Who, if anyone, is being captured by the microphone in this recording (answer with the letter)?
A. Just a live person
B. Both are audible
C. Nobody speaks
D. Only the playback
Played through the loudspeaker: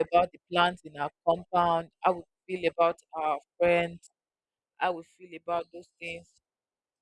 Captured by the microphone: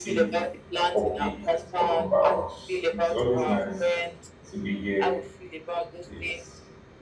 B